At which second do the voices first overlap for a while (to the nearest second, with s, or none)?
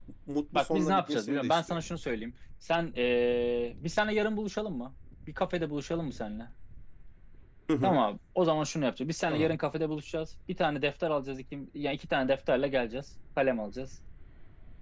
1 s